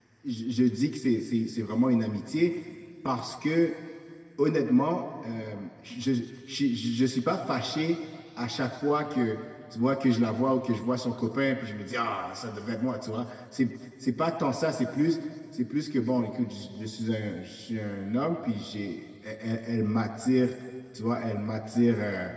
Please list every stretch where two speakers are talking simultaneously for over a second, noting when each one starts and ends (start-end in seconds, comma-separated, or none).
none